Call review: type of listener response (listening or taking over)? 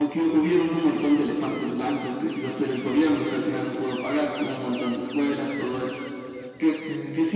listening